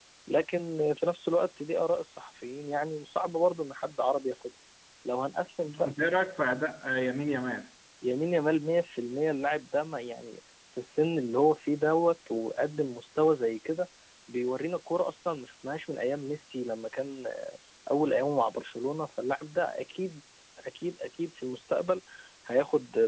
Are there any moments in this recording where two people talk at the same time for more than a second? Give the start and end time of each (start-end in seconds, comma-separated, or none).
none